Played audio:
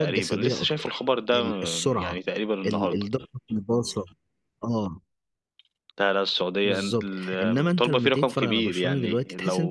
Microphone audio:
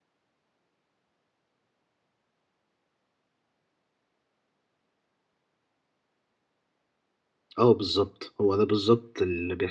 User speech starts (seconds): 8 s

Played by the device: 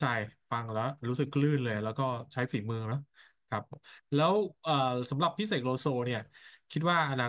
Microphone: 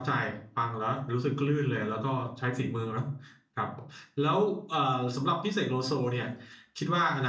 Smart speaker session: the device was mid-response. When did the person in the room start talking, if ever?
none

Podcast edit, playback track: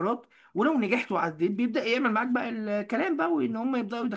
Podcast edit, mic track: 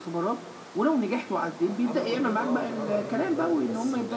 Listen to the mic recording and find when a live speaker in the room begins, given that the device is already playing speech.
2 s

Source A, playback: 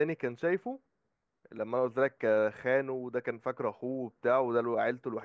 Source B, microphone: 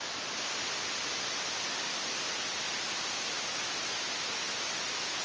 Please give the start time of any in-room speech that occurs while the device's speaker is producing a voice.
none

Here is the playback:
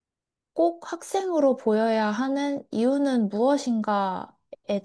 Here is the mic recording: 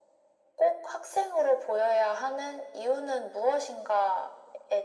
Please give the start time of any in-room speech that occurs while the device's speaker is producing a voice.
none

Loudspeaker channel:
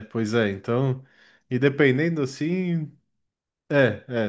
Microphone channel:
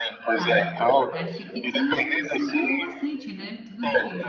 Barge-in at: 0 s

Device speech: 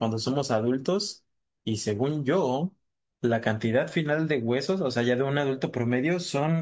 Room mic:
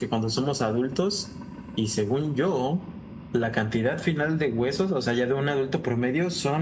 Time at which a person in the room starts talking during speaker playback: none

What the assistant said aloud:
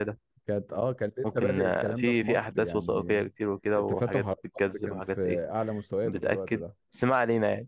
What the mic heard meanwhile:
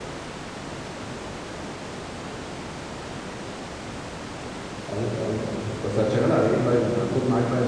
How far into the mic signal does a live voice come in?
5 s

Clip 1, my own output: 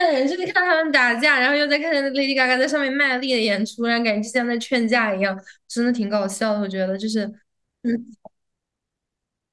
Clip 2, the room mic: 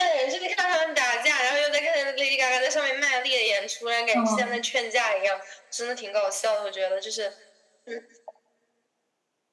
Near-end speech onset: 4 s

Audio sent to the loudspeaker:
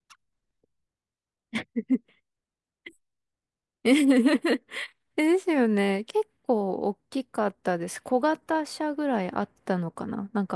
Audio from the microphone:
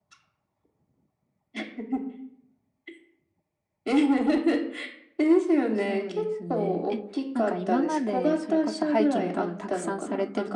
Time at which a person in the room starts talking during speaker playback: 6 s

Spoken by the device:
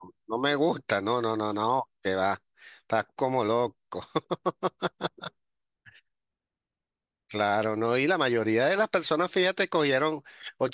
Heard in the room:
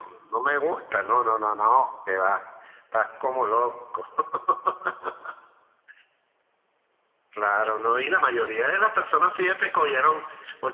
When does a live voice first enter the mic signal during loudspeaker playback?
none

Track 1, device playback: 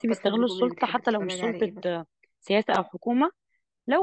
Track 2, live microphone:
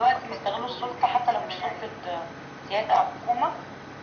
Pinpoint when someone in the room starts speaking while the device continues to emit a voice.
none

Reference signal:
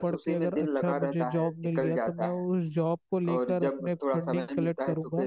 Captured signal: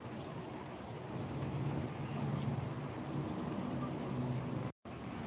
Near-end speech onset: none

